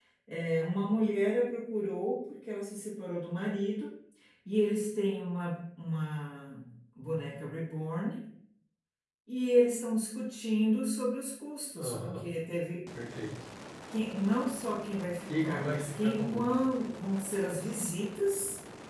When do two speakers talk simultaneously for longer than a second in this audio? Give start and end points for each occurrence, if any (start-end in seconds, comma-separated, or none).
15.3-16.6